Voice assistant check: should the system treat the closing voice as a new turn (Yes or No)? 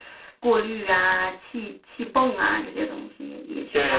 Yes